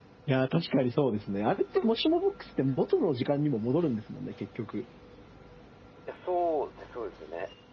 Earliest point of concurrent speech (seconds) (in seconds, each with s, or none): none